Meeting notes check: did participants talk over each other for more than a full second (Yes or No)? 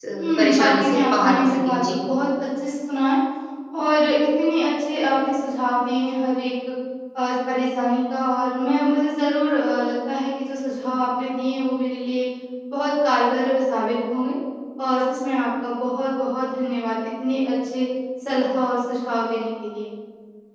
Yes